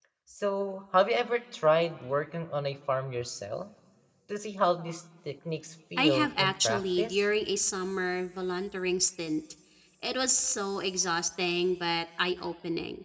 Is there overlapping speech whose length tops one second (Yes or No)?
Yes